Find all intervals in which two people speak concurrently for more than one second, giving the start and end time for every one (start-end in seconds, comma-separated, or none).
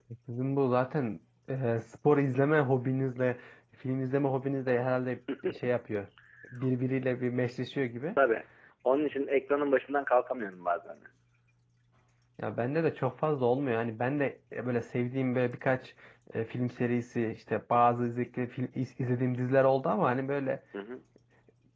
none